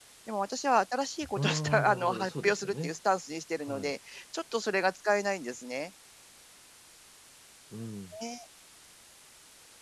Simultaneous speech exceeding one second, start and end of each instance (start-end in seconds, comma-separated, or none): 1.4-2.9